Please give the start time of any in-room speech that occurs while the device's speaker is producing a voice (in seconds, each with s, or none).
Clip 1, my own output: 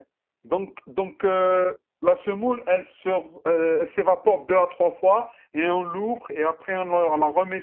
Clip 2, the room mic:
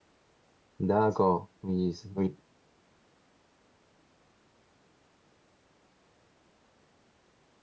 0.8 s